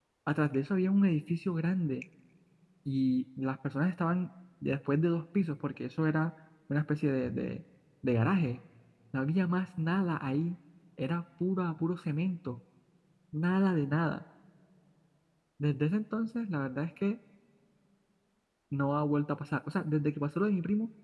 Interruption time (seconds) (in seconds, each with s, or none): none